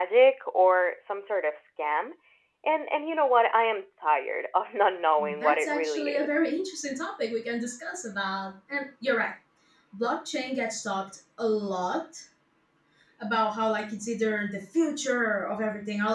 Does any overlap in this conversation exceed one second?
Yes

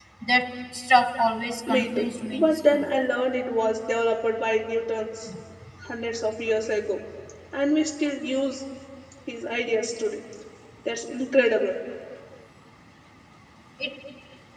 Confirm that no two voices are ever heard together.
No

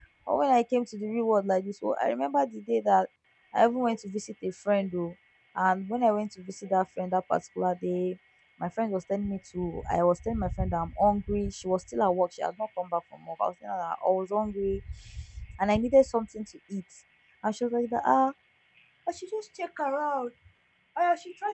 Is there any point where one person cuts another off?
No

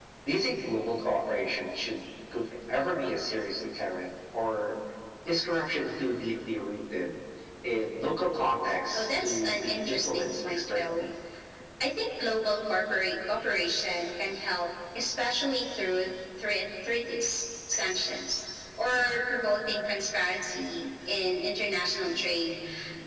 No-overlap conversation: No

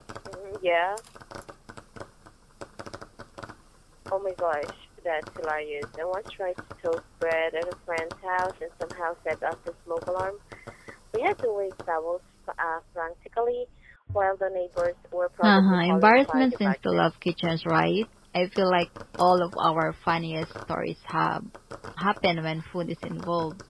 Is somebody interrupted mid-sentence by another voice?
Yes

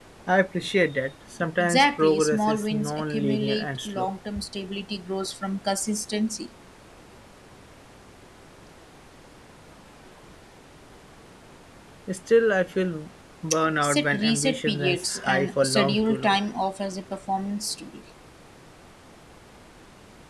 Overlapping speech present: Yes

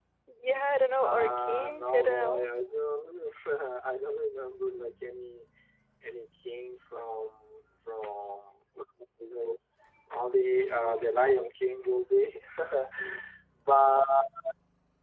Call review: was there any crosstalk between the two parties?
Yes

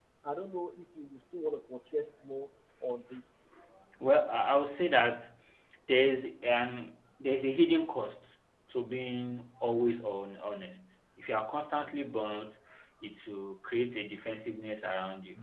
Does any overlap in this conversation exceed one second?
No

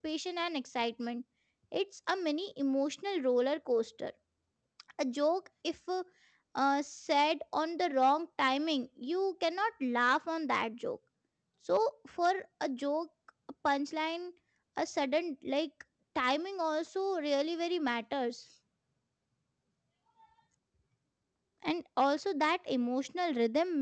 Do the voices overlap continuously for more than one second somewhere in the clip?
No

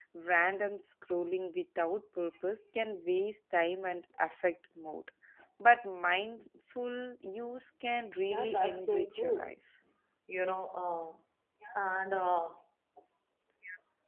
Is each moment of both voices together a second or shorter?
No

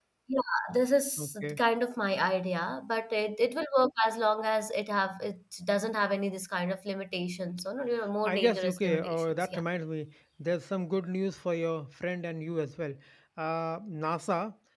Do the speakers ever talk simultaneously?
Yes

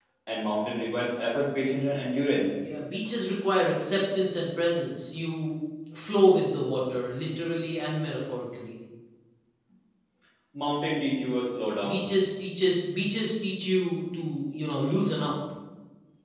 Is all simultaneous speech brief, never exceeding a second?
Yes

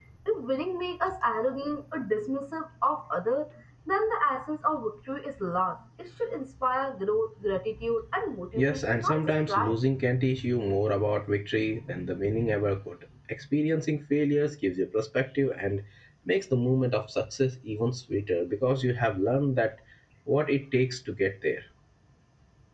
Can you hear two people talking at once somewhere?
Yes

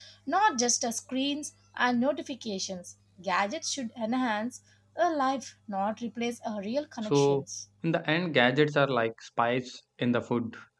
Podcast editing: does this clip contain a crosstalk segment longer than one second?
No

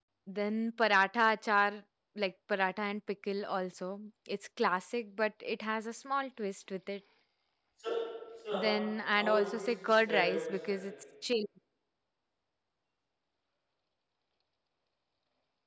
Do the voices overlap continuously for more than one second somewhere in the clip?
Yes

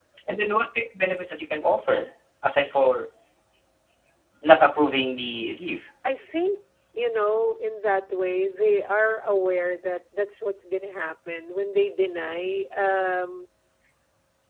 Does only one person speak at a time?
Yes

